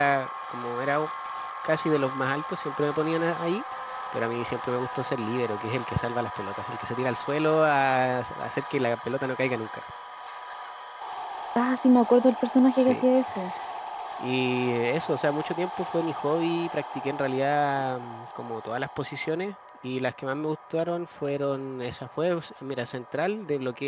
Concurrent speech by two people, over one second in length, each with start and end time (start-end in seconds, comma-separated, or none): none